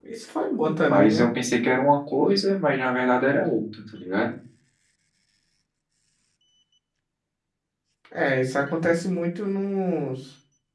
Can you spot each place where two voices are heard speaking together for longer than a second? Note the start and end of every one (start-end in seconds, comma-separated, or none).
none